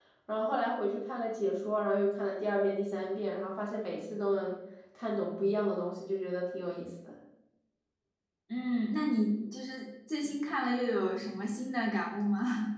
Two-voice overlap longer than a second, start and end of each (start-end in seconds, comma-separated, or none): none